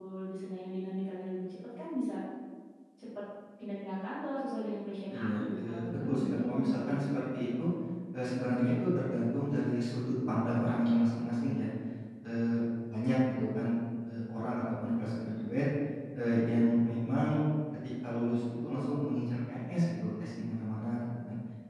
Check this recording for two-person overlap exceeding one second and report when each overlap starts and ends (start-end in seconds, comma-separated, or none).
5.1-7.0